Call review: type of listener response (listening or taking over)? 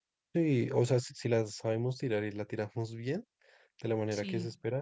listening